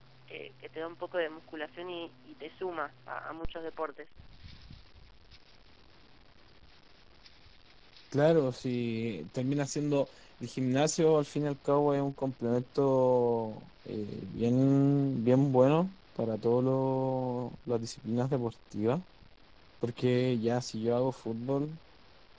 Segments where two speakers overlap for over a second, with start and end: none

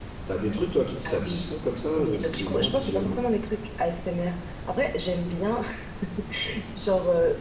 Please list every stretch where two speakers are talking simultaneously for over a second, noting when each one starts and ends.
1.9-3.2

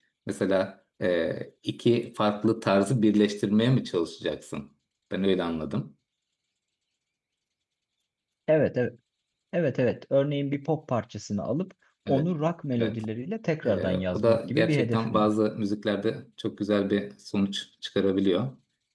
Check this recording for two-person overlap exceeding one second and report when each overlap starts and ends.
13.6-15.3

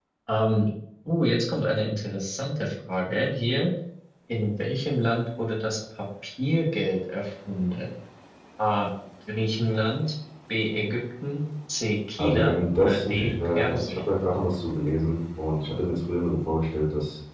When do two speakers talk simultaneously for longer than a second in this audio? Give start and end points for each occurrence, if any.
12.2-14.0

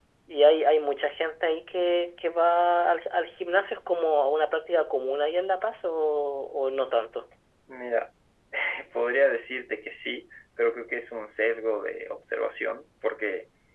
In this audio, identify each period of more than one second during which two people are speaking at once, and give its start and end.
none

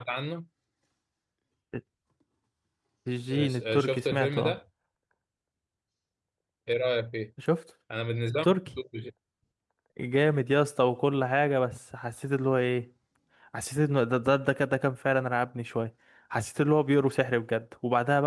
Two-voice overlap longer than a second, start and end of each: 3.3-4.6

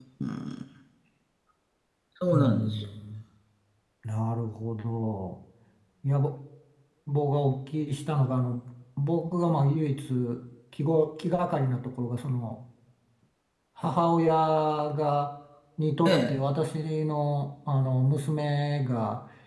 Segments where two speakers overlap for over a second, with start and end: none

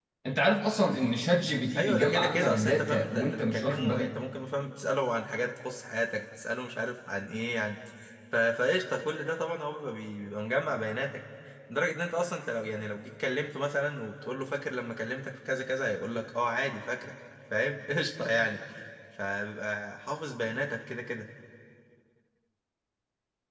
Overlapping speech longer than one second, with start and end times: 1.8-4.1

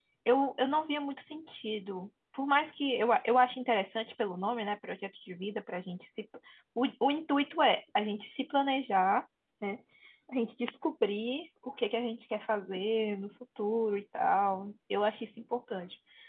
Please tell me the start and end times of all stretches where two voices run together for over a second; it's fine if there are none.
none

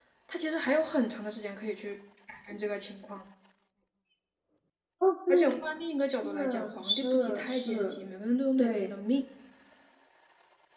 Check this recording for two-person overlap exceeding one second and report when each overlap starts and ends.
6.2-8.0

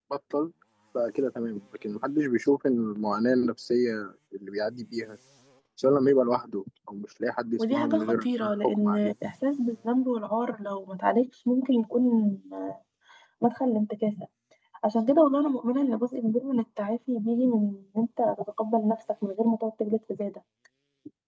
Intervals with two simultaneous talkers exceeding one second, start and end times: 7.6-9.1

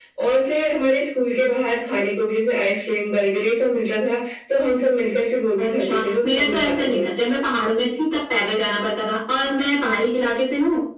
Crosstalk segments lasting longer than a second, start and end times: 5.6-7.0

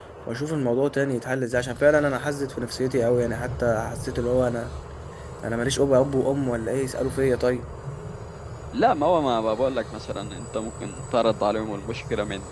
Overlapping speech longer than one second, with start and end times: none

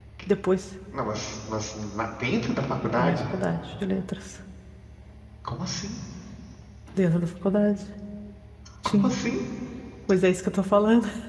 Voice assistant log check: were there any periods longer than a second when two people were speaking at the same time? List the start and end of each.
none

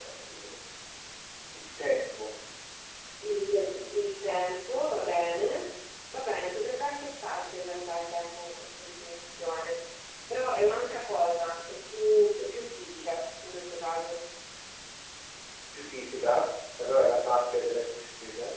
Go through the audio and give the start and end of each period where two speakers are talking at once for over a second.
none

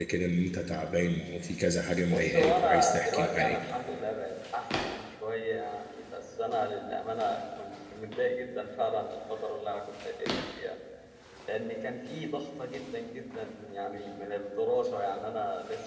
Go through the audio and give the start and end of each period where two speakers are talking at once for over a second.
2.0-3.6

